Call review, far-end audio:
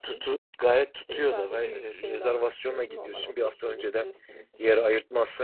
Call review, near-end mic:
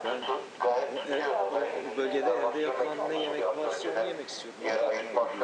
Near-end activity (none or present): present